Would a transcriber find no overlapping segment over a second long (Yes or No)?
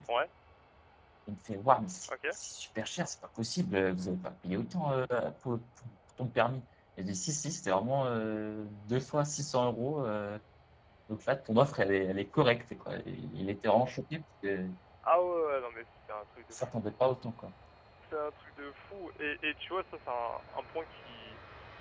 Yes